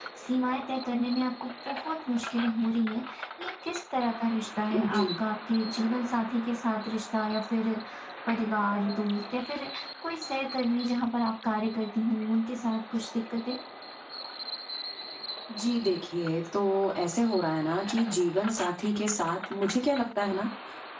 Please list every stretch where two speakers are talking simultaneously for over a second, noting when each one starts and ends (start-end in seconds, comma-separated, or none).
none